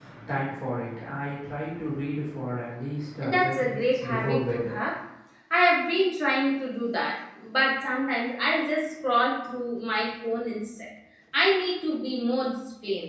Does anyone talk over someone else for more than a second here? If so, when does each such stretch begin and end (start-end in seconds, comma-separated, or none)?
3.3-4.7